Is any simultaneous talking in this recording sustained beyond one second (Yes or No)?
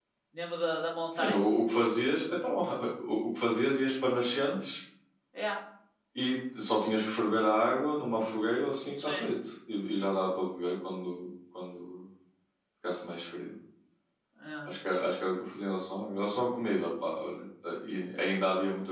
No